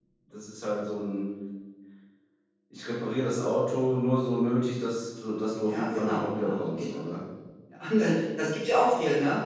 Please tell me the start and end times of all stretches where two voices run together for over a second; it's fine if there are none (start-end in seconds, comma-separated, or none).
5.6-7.0